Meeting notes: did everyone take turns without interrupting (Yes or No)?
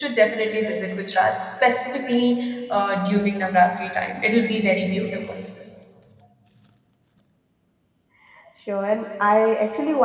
Yes